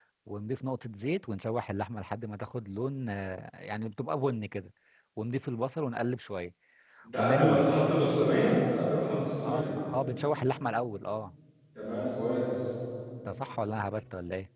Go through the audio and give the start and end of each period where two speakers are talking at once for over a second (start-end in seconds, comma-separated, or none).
none